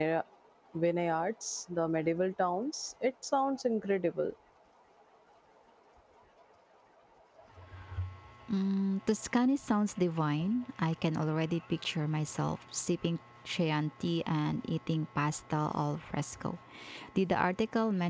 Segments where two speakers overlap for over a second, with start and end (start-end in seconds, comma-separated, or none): none